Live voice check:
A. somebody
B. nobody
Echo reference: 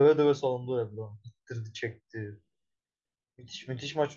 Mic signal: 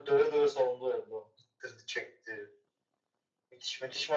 B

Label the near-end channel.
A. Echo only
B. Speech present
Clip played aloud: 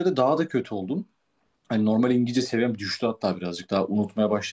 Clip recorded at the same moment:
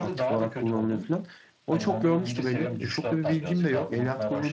B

